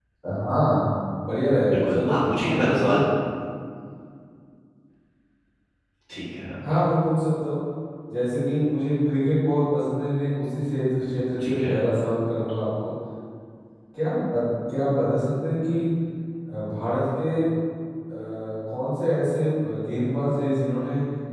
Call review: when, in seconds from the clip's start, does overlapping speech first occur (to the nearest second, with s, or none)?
2 s